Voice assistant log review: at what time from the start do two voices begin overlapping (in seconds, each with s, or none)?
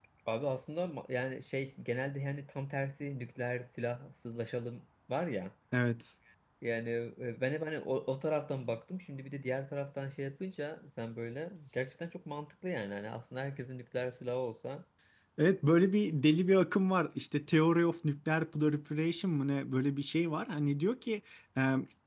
none